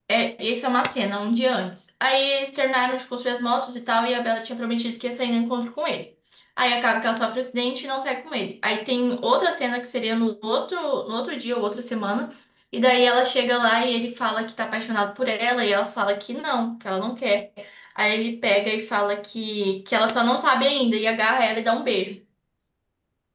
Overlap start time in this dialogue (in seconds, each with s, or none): none